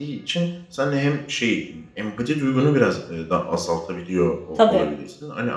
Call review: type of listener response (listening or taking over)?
listening